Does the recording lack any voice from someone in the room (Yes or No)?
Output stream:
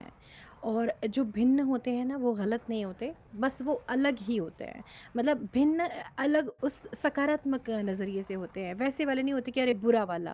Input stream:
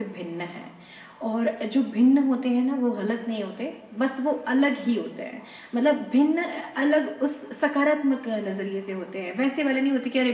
Yes